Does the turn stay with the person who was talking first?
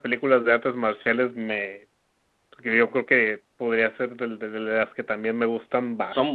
Yes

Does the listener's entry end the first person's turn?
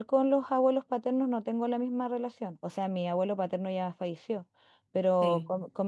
No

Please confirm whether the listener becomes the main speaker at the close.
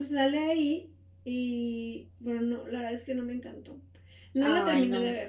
No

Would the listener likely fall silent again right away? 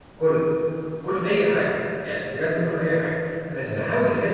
Yes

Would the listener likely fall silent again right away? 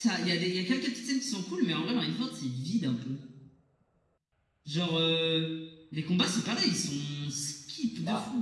No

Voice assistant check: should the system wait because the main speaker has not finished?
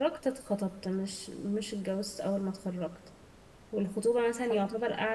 Yes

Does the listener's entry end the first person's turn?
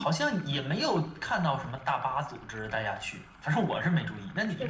Yes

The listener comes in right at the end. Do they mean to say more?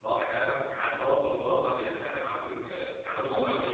No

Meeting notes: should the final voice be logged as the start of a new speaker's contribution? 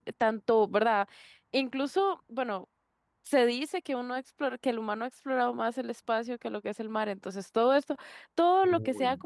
No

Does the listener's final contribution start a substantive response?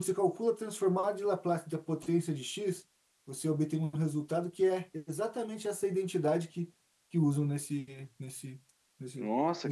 Yes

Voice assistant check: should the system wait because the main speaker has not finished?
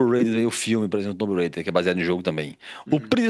Yes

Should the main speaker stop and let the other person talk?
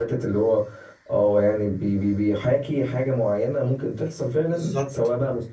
Yes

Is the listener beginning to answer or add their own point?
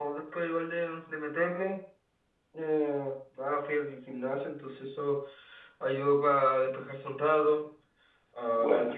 No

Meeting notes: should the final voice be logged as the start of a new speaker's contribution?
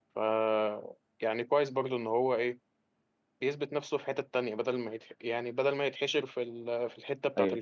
Yes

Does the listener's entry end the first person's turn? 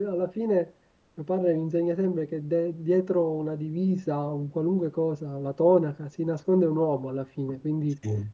No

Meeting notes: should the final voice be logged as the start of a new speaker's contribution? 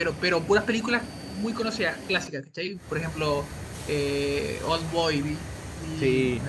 No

